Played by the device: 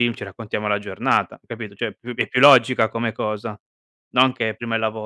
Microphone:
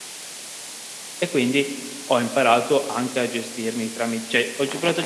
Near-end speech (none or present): present